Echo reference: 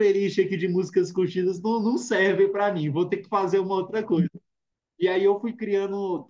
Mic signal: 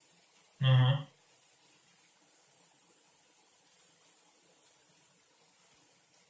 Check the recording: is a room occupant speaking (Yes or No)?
Yes